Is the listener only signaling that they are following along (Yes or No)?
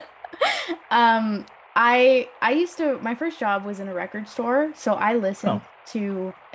Yes